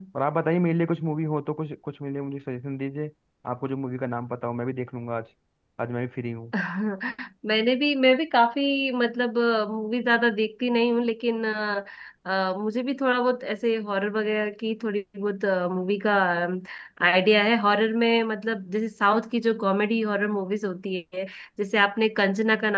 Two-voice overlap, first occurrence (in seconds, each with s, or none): none